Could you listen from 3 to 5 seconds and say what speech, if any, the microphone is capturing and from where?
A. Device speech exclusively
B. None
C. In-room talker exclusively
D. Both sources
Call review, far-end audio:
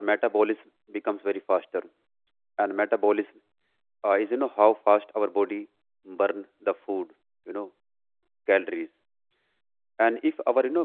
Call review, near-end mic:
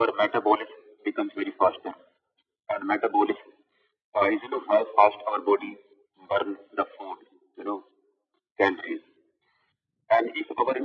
A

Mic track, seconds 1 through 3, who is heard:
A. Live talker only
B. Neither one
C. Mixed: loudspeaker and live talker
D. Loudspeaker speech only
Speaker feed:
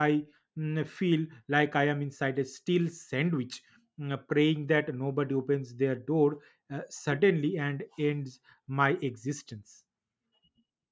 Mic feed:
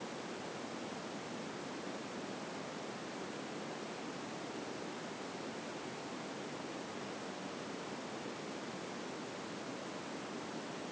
B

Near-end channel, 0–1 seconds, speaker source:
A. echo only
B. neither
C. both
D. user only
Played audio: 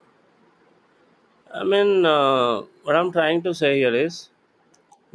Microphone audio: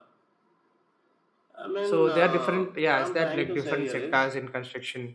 B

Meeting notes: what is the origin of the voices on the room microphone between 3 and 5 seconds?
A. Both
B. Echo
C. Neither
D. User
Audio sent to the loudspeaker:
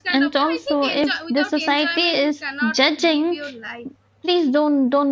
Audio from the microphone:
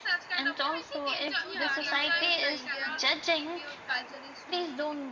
A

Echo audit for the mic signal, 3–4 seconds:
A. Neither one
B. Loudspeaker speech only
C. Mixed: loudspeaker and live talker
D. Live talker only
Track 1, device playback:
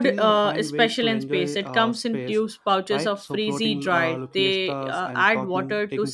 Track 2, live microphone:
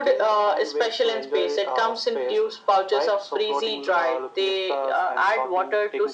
B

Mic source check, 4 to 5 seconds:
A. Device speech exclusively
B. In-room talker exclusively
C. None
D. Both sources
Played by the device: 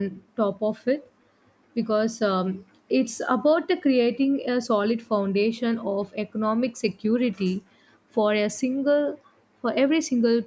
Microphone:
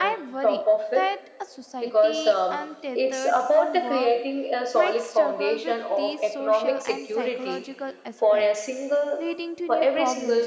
D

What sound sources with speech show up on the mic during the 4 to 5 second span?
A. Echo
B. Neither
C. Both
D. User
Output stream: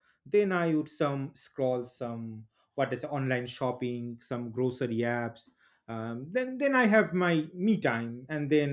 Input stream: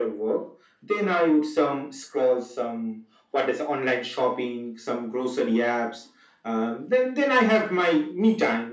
A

